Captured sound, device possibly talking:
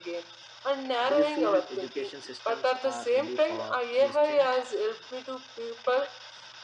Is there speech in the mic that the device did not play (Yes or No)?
Yes